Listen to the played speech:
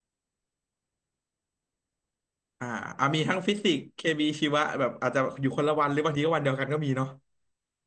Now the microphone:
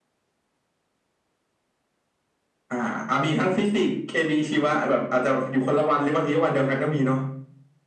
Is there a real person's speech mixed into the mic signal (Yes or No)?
No